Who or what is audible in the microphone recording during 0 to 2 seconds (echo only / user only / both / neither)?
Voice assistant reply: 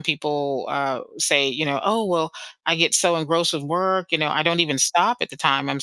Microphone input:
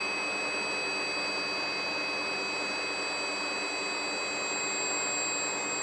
neither